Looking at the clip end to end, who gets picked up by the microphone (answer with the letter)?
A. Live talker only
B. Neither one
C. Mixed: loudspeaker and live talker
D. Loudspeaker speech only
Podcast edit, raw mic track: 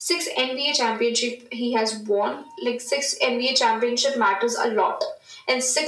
D